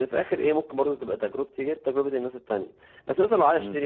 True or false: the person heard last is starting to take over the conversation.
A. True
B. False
B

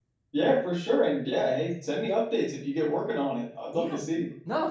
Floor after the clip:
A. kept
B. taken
B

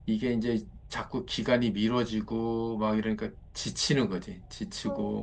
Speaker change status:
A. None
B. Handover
B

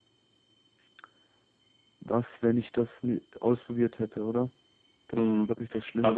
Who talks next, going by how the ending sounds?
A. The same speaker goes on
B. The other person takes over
B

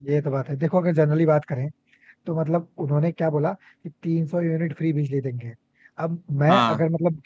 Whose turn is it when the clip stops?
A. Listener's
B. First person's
B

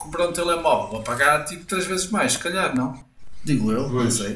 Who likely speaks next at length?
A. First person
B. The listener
B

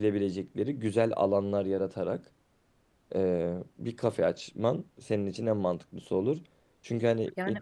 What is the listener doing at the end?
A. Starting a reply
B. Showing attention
B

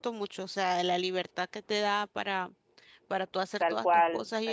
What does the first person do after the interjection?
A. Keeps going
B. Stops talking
B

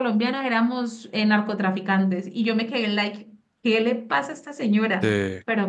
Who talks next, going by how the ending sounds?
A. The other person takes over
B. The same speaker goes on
B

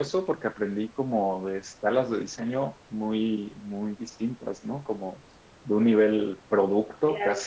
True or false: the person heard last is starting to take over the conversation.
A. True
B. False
B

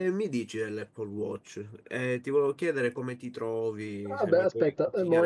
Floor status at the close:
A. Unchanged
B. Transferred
B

